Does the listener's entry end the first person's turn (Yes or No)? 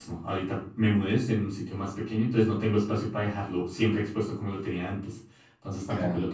No